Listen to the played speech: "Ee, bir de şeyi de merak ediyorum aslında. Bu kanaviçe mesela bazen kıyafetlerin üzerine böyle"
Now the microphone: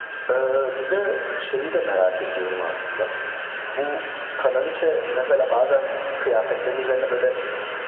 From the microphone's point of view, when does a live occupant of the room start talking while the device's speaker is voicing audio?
none

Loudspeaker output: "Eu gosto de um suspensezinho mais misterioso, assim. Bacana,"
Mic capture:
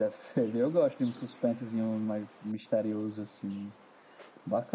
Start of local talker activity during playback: none

